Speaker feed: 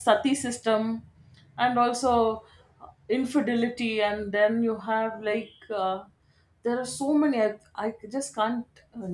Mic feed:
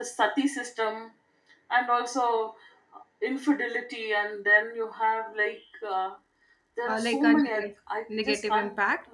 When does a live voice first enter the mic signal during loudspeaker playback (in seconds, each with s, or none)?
6.8 s